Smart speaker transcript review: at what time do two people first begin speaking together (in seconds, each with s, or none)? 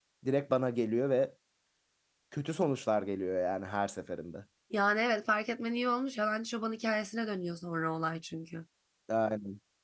none